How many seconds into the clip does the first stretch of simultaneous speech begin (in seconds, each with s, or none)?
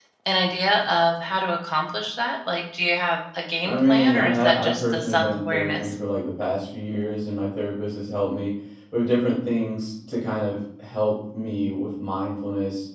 3.6 s